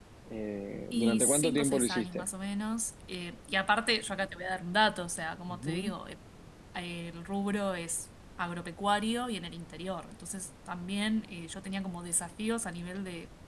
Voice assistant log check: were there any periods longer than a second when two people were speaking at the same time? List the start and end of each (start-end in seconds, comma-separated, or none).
0.9-2.3